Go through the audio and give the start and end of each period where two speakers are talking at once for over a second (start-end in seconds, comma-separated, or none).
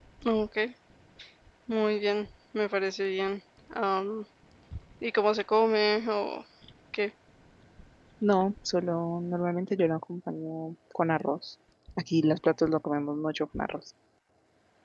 none